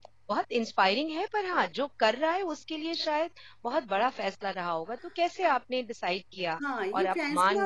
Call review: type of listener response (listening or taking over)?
taking over